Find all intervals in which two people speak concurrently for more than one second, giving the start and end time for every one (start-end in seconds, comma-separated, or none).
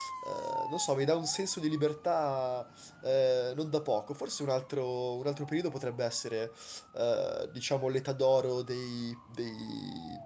none